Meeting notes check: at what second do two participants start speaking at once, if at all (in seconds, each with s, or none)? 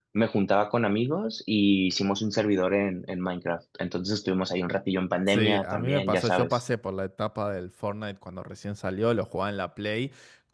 5.3 s